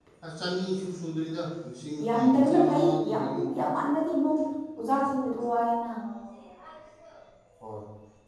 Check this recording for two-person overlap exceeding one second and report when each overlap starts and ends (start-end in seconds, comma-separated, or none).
2.1-3.4